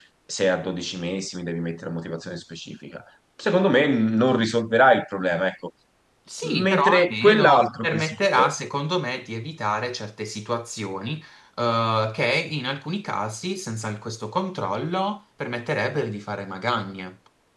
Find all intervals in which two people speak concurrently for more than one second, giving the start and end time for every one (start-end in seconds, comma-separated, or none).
6.4-8.5